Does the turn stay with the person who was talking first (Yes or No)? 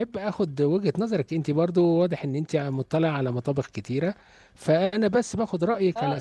No